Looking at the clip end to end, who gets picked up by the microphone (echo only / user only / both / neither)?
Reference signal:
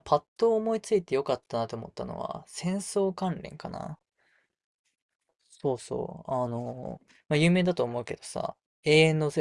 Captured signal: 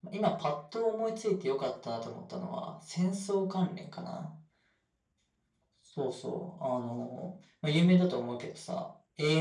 echo only